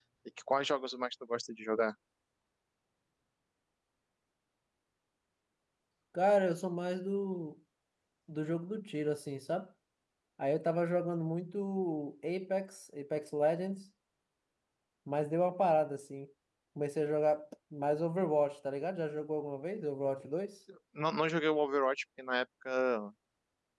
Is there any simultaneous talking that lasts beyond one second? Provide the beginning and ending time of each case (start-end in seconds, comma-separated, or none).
none